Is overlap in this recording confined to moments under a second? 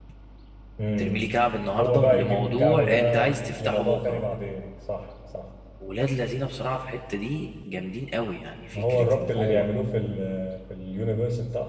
No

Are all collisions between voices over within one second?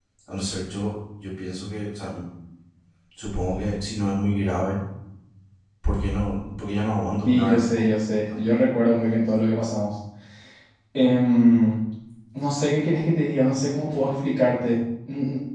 No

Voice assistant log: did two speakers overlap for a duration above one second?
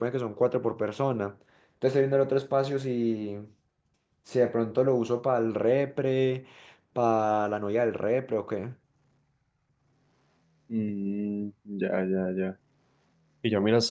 No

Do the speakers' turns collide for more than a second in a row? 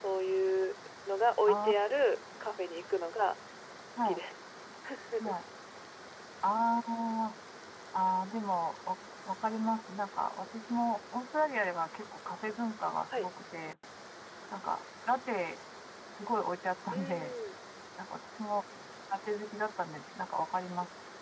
No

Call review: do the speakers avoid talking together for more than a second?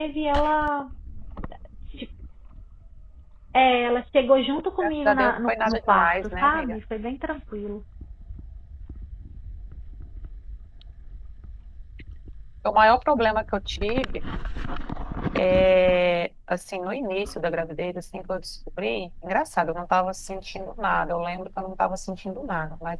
No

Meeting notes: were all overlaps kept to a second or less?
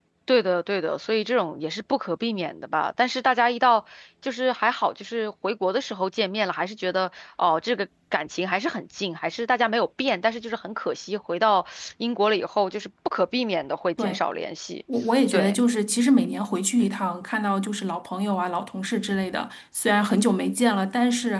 Yes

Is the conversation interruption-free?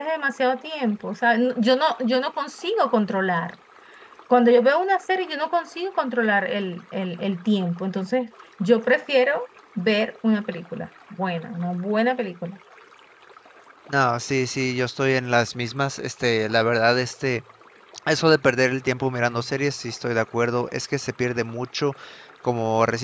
Yes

